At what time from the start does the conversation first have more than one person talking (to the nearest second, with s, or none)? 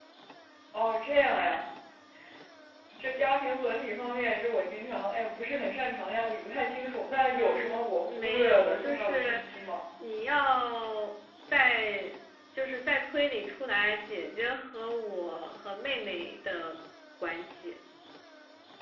7 s